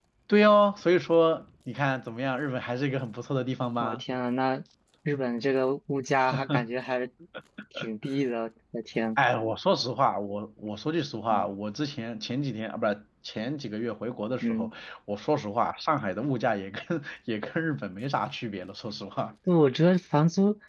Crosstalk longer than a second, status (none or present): none